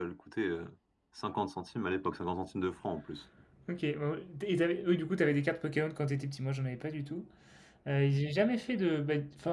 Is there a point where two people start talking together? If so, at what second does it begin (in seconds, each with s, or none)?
none